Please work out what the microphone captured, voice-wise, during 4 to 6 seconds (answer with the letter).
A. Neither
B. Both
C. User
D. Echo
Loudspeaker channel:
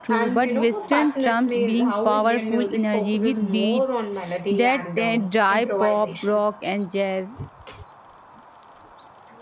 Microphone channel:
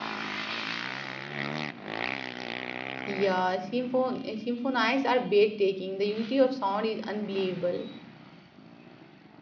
C